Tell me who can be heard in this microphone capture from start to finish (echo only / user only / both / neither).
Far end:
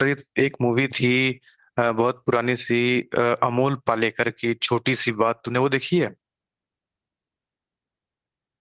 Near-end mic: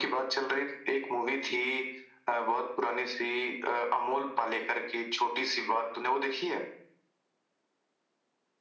echo only